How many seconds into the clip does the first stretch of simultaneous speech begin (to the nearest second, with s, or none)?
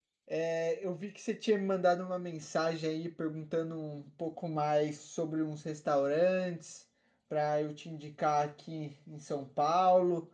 none